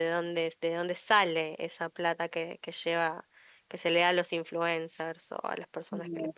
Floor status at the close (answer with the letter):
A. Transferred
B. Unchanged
A